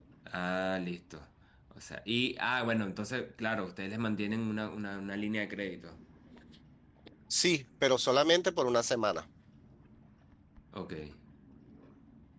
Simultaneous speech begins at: none

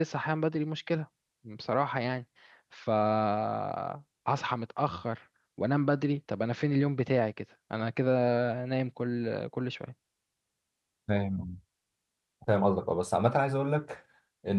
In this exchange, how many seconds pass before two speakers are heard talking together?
none

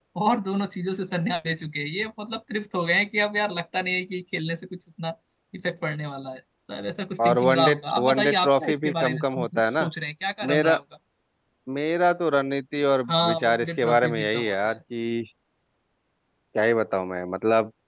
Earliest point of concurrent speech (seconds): 7.2 s

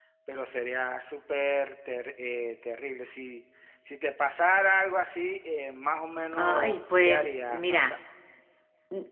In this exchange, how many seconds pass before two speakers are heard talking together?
6.3 s

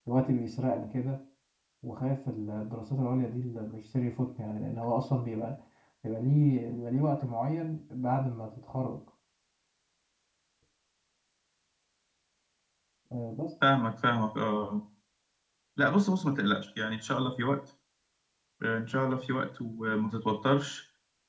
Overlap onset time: none

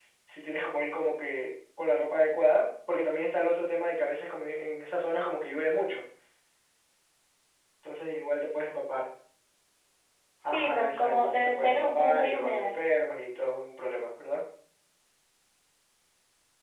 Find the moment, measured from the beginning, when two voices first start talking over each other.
10.5 s

